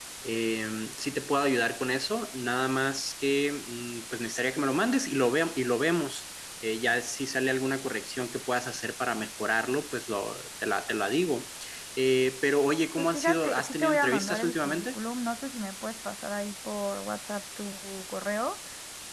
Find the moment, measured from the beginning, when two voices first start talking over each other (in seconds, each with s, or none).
12.9 s